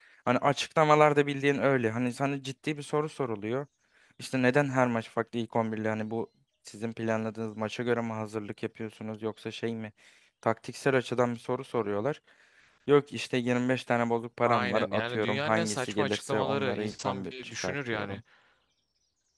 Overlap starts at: 14.4 s

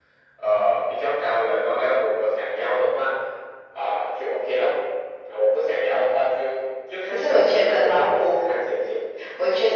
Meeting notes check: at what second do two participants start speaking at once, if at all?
7.1 s

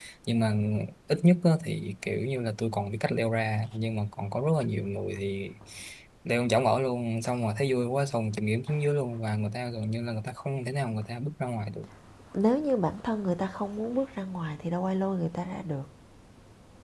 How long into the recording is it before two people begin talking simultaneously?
none

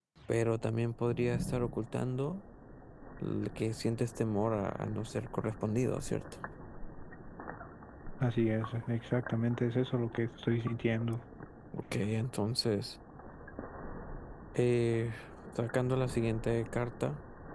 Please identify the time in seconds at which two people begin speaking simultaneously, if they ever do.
none

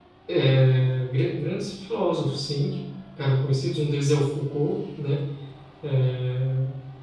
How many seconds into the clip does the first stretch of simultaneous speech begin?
none

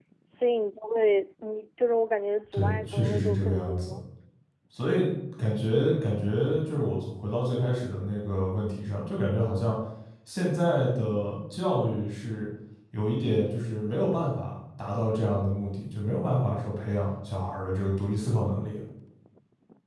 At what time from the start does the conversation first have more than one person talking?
2.5 s

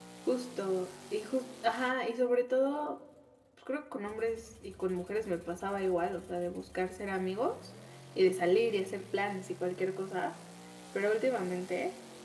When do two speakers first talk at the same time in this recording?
none

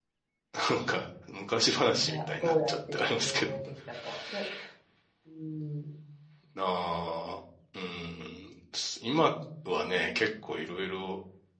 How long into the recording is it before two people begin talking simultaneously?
2.0 s

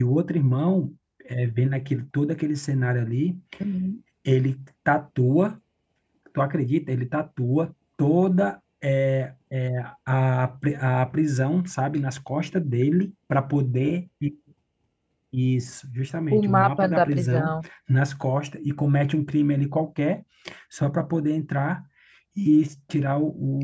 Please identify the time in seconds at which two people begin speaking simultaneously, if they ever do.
16.3 s

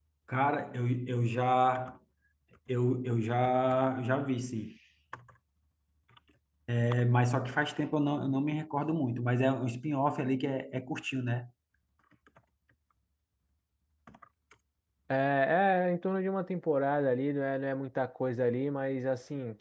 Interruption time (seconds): none

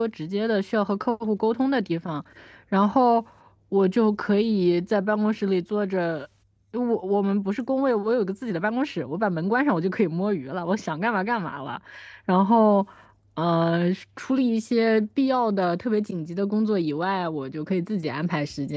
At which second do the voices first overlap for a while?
none

